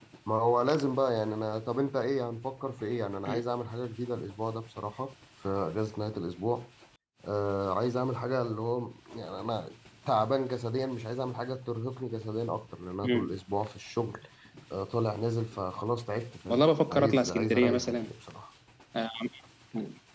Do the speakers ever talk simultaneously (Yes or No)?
Yes